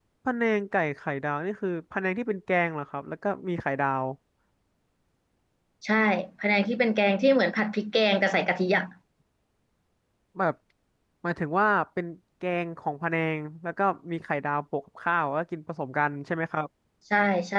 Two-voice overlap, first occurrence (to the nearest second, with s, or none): none